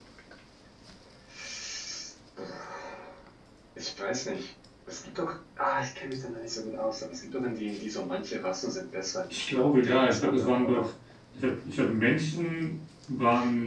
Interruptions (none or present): present